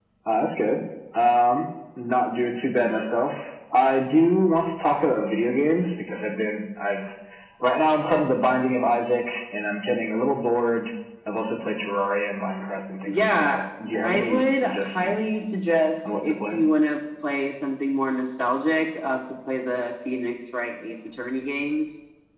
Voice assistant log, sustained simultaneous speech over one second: present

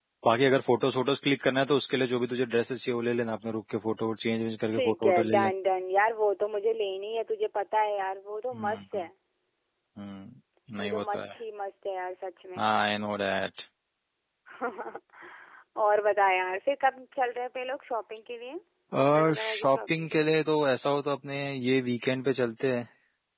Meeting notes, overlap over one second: present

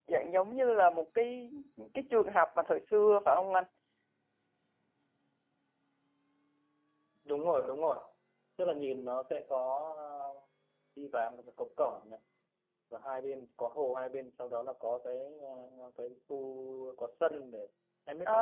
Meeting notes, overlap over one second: none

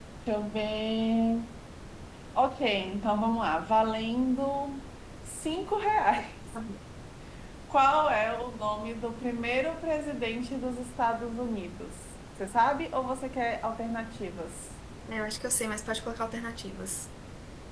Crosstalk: none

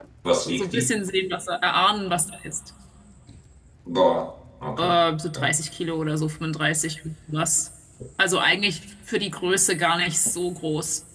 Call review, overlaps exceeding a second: none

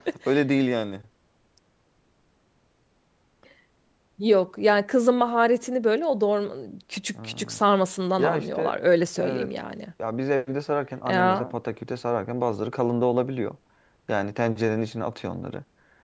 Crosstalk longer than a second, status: none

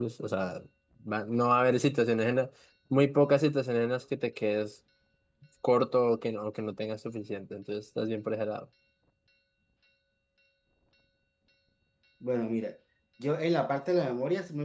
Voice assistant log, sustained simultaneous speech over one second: none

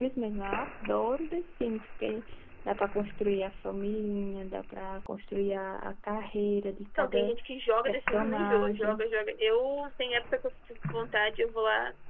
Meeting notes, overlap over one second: present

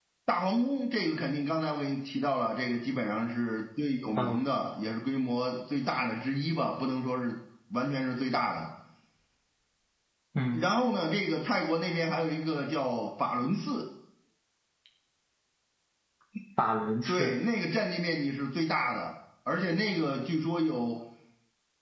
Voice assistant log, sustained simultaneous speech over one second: none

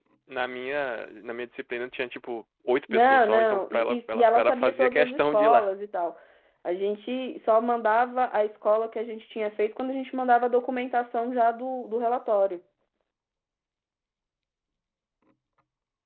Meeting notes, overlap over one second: present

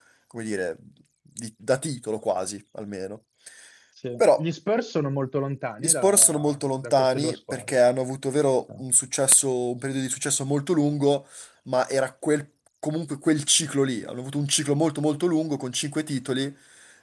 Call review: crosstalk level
present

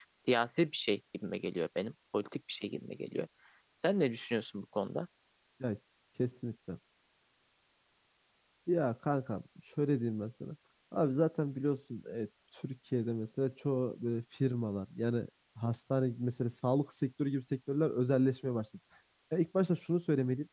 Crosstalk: none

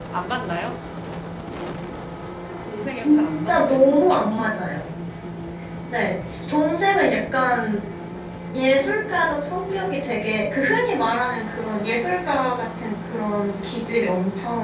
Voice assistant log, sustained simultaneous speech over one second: present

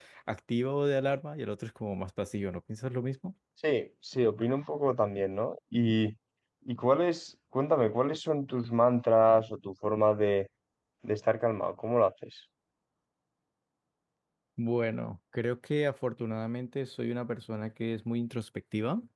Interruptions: none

